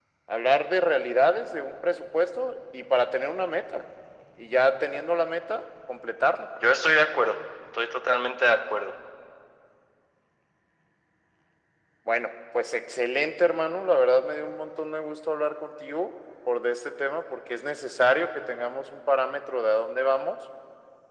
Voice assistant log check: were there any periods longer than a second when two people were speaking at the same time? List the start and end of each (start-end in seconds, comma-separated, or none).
none